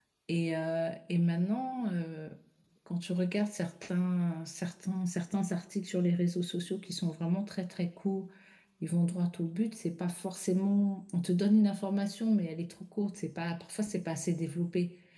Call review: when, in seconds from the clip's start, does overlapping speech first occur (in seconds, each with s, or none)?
none